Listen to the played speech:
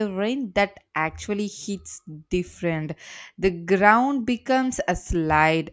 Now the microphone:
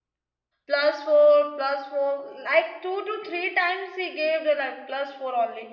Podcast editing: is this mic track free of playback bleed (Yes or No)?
Yes